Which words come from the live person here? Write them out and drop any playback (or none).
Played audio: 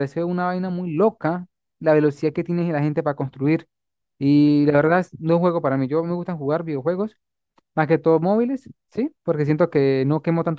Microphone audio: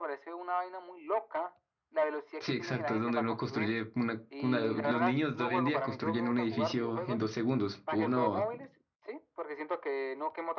Sí, exacto, es donde uno construye una, una- Los niños de hoy en día construyen un edificio en dos segundos. Uno,